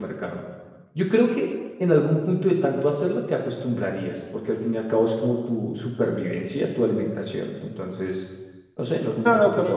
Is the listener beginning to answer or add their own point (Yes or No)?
Yes